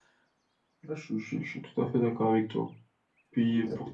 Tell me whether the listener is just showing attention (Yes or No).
Yes